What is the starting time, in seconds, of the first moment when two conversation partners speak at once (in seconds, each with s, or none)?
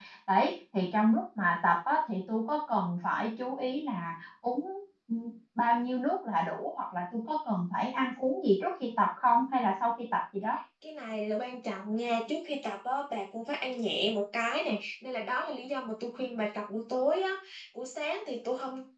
none